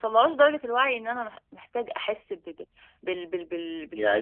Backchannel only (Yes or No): No